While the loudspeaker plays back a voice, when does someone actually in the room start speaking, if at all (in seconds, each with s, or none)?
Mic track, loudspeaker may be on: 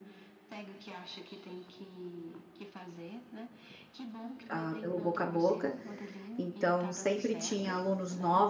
4.5 s